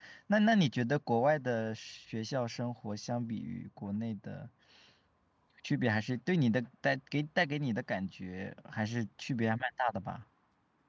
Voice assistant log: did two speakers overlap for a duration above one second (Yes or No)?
No